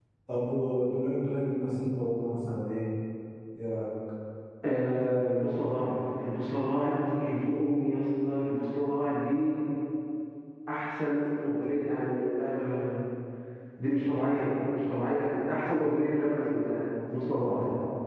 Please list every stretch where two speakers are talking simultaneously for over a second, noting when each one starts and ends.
none

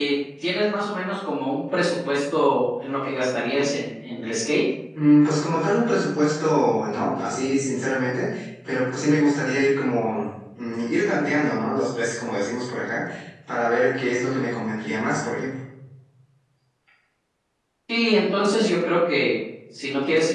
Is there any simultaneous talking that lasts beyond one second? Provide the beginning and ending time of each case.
none

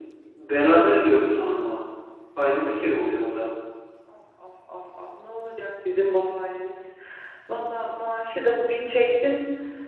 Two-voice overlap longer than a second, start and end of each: none

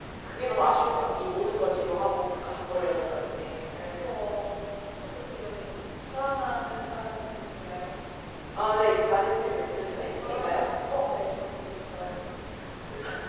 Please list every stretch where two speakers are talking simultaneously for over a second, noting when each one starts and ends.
none

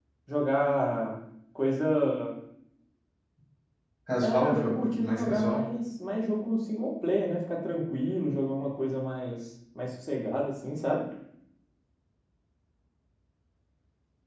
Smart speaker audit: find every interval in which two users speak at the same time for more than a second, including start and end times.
4.2-5.6

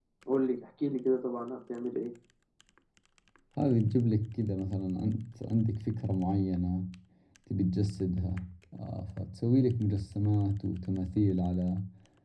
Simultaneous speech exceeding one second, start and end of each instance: none

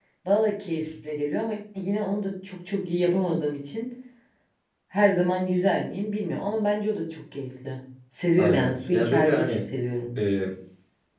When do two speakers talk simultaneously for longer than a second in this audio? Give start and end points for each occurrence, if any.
8.4-9.6

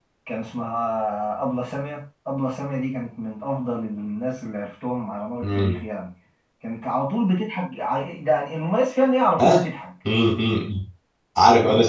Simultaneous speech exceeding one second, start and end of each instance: none

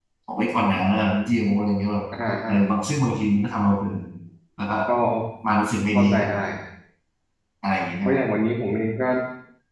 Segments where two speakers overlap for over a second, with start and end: none

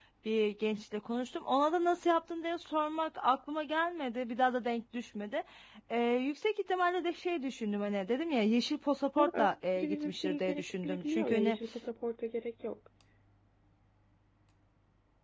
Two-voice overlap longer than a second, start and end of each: 9.2-11.6

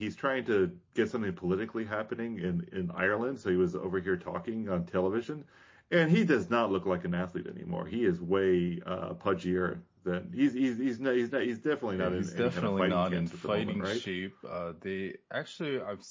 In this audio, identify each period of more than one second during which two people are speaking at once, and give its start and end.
11.9-14.0

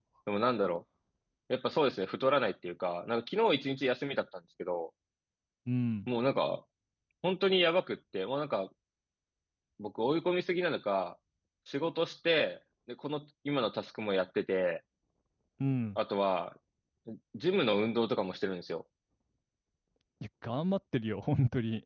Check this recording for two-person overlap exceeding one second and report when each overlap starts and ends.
none

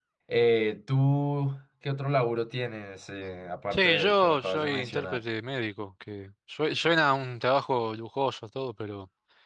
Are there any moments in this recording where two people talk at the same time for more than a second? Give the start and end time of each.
3.7-5.2

